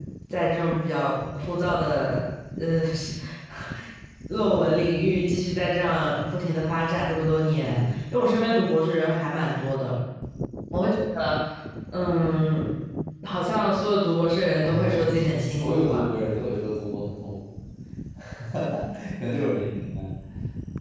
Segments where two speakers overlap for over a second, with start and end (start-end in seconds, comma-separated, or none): 14.6-16.0